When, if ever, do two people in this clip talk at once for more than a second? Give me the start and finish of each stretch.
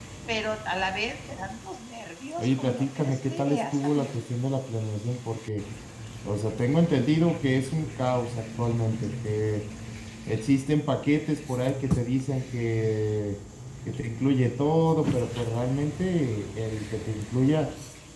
2.4-4.1

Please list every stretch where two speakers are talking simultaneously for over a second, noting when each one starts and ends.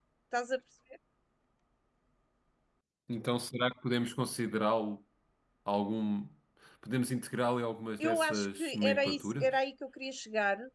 8.0-9.6

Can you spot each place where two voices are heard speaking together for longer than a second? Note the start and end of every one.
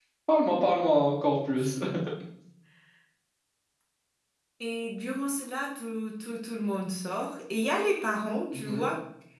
none

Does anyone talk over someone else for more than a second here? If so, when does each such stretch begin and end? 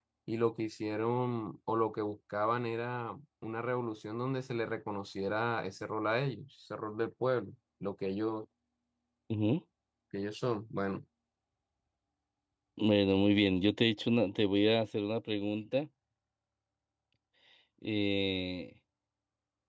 none

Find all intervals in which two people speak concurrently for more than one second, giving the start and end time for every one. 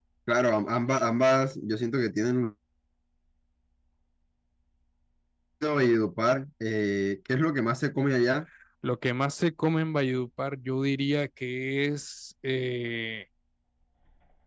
none

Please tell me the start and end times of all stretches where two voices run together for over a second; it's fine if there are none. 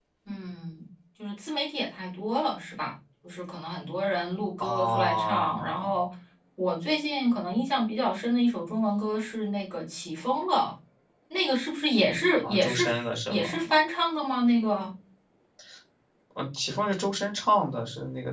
4.6-5.9

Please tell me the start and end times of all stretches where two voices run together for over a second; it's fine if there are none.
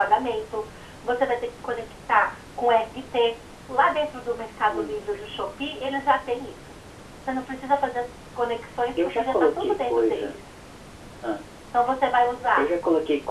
9.1-10.4

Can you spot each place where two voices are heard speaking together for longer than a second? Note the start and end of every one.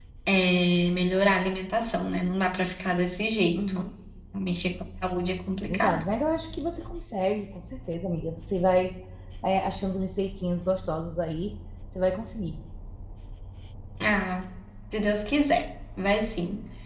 none

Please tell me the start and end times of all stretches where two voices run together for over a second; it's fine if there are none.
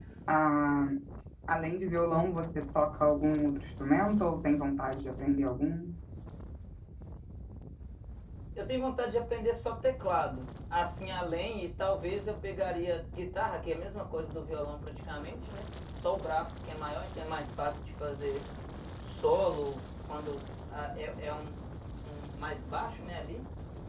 none

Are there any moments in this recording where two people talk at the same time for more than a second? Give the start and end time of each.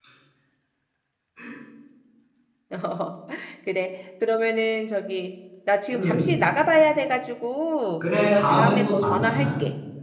8.3-9.5

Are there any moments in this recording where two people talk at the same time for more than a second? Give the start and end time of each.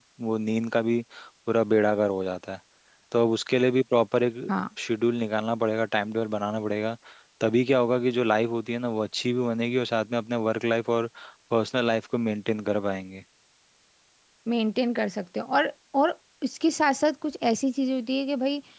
none

